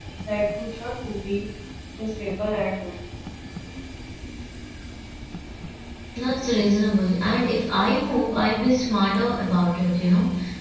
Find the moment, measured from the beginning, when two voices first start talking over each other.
none

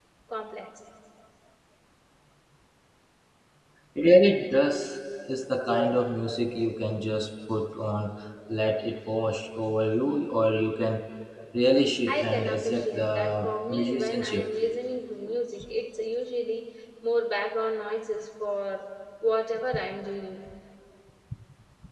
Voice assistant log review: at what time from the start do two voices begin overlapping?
12 s

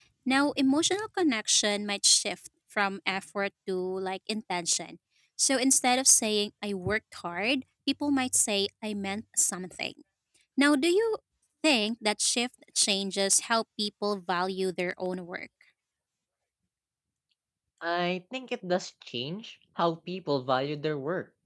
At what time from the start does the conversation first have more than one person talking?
none

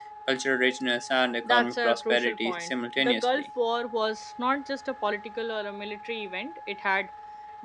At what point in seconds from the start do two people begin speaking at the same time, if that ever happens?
1 s

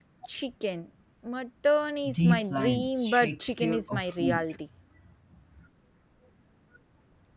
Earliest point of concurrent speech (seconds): 2 s

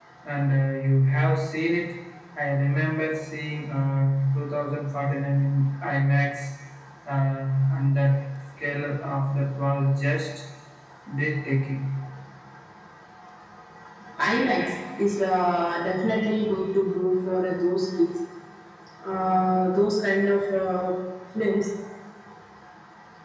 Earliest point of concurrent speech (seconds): none

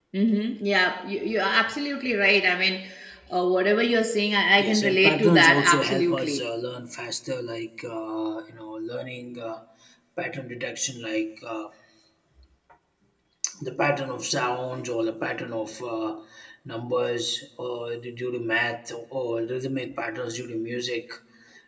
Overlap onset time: 5 s

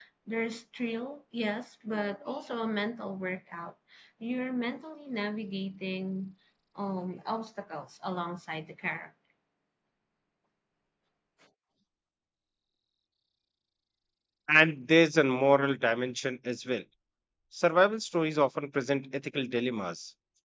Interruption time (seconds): none

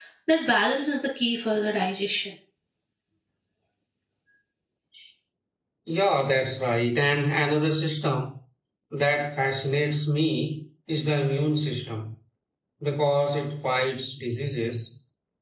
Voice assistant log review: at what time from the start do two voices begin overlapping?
none

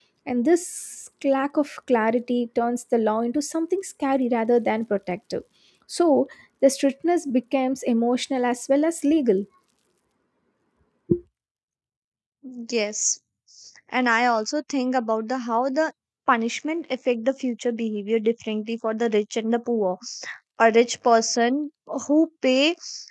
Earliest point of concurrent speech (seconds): none

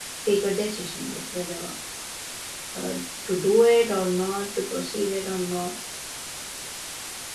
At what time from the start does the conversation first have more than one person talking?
none

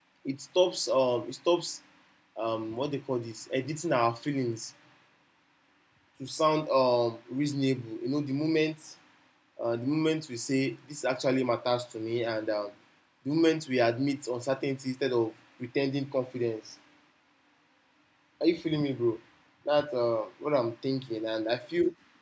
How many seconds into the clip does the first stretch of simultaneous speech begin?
none

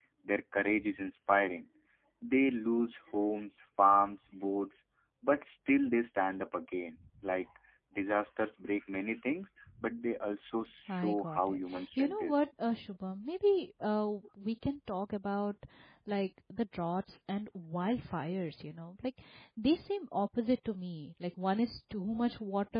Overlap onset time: 11 s

